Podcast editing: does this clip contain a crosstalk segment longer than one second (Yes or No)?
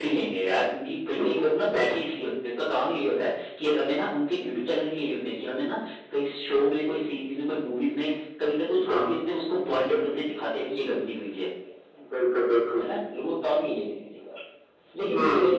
No